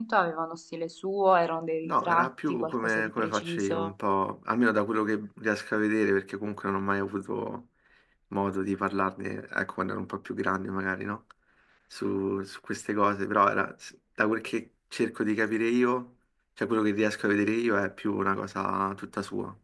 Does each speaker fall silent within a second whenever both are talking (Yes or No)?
No